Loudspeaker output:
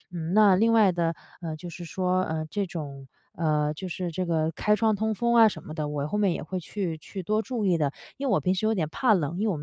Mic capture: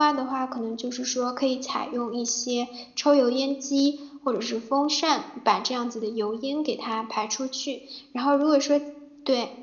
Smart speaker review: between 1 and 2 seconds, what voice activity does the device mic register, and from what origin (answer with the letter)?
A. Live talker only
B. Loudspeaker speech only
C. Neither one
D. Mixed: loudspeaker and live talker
A